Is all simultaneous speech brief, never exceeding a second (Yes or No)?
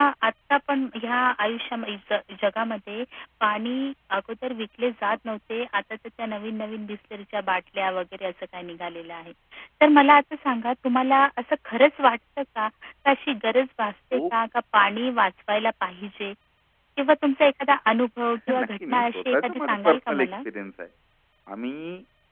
No